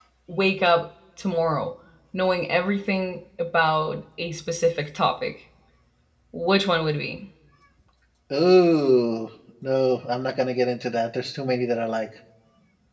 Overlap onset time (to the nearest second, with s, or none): none